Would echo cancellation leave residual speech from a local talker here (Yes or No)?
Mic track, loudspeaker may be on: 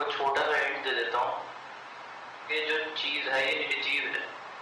No